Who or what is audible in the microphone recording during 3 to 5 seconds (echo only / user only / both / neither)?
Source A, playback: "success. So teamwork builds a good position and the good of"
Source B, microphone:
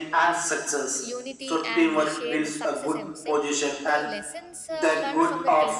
both